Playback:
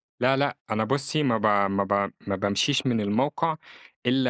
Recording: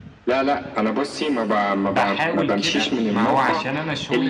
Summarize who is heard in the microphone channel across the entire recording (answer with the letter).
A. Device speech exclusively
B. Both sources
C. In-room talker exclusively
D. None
B